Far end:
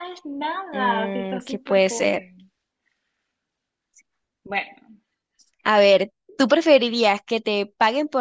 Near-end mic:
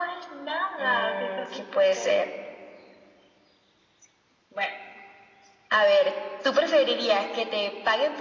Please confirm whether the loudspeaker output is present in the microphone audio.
Yes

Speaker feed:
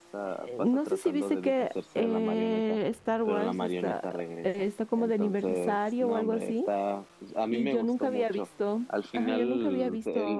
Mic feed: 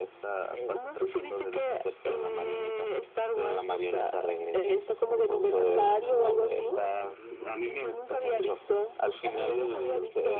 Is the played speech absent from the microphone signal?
No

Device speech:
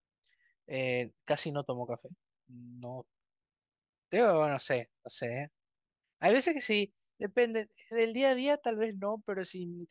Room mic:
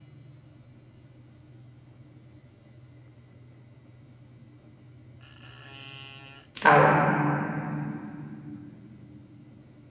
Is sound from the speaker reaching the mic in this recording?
No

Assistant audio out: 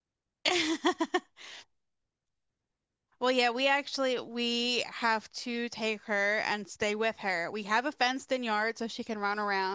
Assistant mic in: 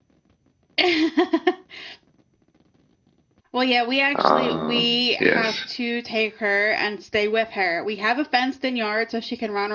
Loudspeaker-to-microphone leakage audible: Yes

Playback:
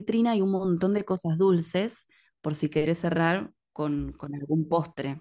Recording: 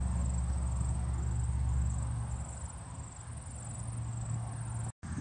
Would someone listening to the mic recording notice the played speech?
No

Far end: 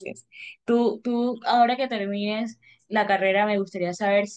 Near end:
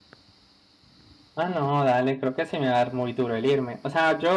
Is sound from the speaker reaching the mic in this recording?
No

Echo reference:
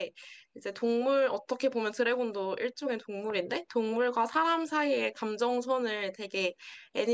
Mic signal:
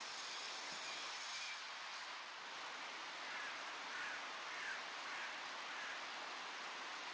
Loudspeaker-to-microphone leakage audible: No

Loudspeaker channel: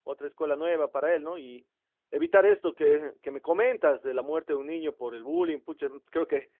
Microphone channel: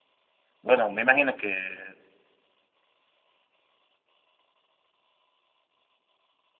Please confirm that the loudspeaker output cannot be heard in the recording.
Yes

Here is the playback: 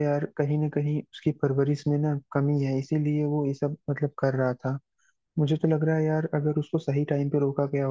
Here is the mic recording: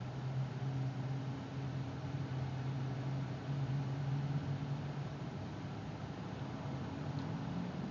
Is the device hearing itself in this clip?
No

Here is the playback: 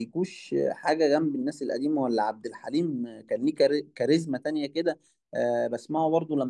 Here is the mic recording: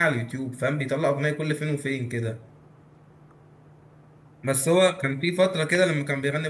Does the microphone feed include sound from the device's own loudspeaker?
No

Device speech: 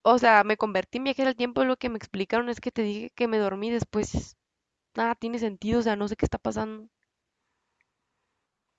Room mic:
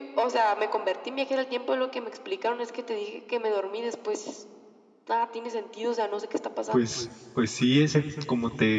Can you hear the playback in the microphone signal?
Yes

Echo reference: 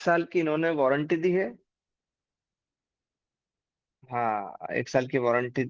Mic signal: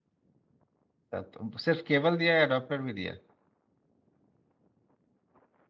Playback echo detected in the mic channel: No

